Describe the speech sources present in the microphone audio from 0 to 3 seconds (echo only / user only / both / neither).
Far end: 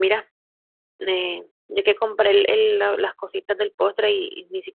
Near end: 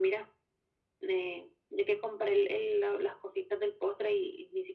echo only